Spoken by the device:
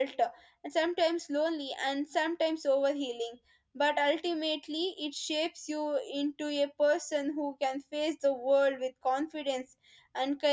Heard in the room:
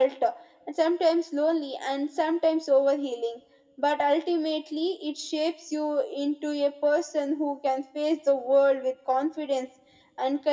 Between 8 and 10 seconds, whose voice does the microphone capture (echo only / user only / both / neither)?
echo only